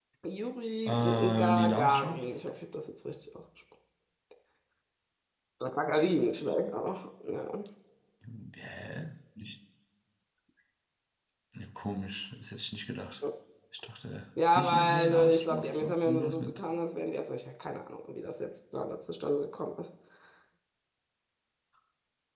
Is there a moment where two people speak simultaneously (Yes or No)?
Yes